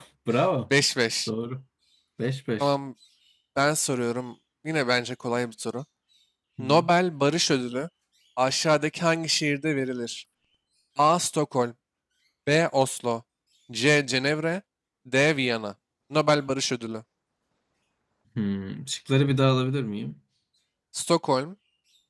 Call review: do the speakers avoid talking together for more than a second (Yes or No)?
Yes